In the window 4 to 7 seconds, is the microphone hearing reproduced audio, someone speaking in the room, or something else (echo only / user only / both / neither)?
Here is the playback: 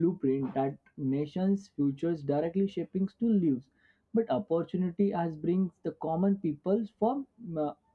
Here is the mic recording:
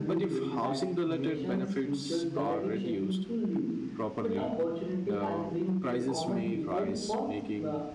both